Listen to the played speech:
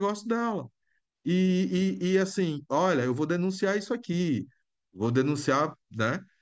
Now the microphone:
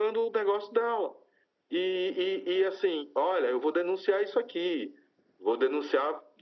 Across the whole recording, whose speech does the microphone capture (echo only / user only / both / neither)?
echo only